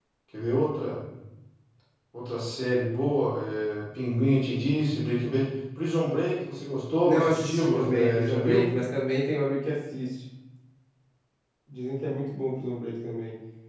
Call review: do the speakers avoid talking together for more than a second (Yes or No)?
No